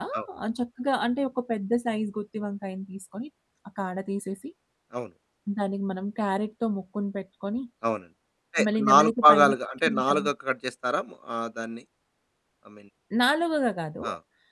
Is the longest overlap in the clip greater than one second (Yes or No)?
Yes